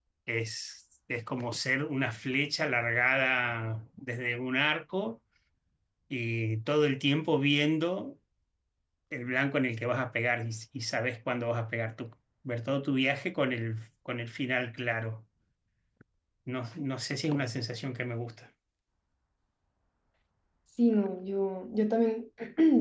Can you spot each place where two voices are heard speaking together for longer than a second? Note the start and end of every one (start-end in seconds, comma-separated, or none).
none